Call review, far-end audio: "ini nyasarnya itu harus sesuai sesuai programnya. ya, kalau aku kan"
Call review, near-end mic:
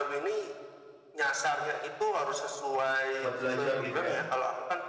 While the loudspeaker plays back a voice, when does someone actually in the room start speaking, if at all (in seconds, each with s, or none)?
3.2 s